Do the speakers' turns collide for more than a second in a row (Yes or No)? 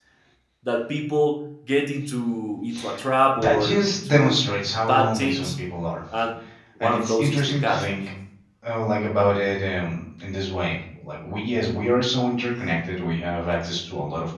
Yes